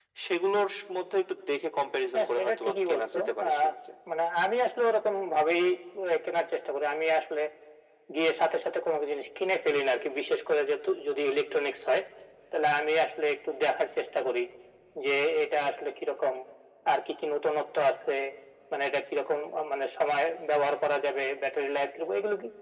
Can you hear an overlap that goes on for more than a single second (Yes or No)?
Yes